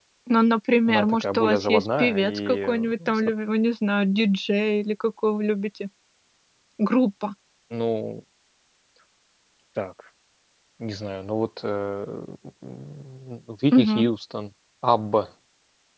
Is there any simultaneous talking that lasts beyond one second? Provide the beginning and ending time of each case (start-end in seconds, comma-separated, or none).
0.9-3.2